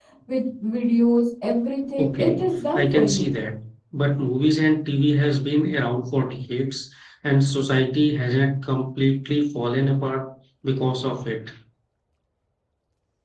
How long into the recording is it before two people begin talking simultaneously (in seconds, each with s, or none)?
2.0 s